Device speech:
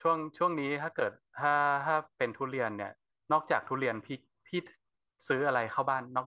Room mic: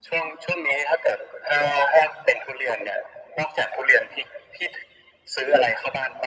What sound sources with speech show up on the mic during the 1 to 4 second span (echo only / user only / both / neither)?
echo only